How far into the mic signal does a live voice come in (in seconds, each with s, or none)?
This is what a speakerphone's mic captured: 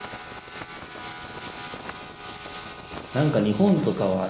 3.1 s